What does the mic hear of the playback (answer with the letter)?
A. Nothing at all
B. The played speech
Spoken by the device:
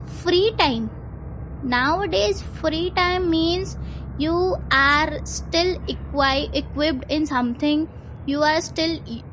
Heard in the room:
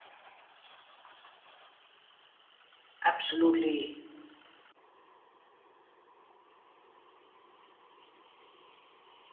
A